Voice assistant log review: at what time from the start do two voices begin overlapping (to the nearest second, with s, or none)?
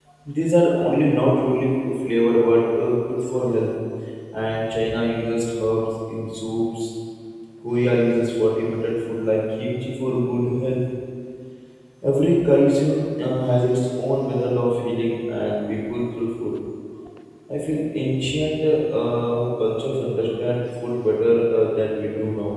none